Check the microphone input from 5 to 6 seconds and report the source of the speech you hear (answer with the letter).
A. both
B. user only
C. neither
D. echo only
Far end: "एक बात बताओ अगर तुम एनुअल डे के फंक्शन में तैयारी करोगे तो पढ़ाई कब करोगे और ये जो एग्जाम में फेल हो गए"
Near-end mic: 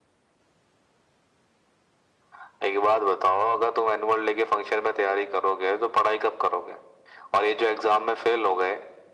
D